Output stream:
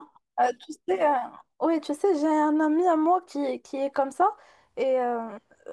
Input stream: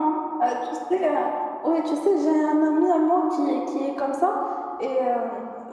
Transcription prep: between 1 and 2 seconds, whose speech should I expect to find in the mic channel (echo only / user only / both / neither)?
echo only